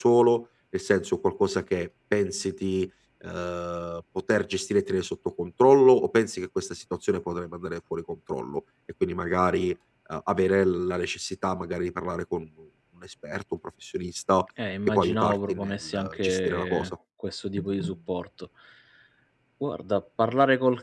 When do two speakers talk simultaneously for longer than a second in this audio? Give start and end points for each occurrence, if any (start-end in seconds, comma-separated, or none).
14.9-16.9